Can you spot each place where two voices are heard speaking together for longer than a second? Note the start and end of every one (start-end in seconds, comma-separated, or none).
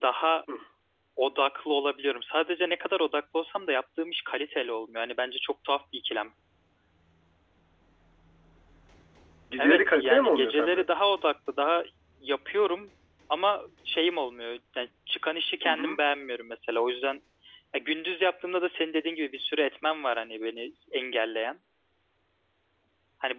9.6-10.9